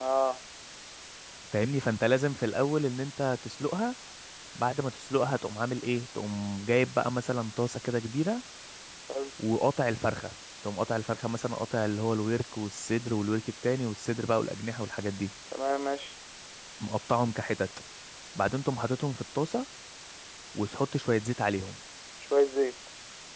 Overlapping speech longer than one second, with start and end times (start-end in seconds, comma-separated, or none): none